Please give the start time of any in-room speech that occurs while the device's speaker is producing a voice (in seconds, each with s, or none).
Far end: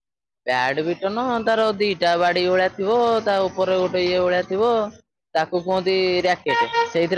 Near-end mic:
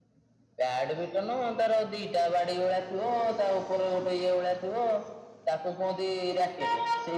none